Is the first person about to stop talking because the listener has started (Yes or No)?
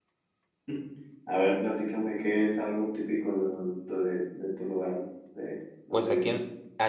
Yes